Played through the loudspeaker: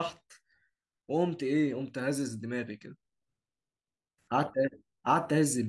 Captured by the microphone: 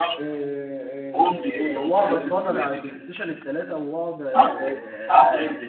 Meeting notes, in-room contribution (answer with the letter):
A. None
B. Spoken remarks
B